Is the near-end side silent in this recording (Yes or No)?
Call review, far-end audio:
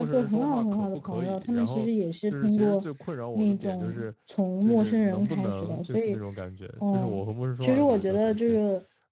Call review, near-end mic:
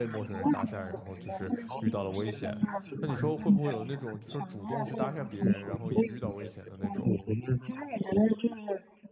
No